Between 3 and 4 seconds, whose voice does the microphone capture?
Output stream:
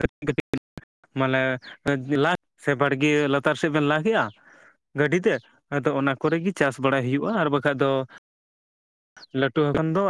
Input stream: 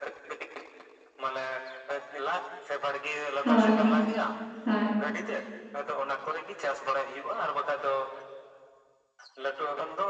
both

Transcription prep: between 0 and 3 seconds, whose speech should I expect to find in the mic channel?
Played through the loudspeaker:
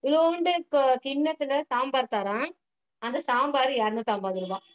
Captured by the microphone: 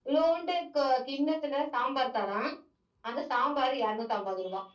echo only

